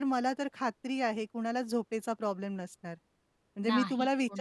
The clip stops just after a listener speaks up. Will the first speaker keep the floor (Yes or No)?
Yes